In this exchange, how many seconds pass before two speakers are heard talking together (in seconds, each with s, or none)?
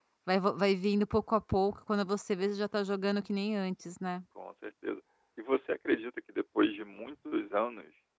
none